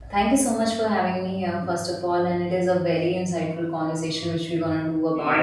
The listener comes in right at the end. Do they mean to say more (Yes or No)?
No